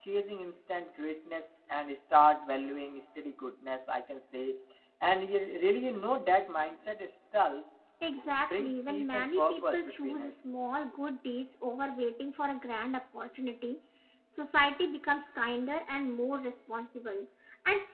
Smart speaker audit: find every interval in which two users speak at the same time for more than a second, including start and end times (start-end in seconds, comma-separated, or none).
8.4-10.3